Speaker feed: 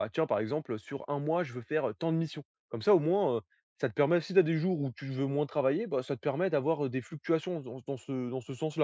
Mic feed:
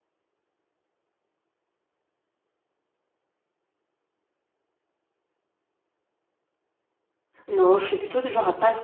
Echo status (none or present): none